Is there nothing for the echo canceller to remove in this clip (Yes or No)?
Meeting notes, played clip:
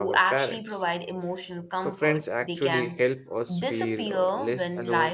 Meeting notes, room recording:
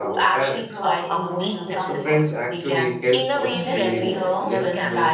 No